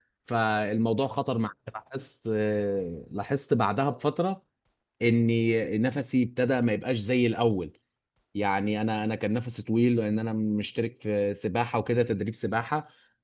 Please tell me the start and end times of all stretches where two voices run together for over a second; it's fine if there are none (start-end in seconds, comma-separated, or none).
none